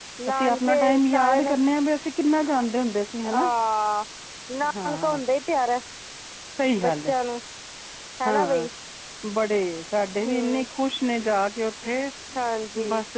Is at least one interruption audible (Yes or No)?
Yes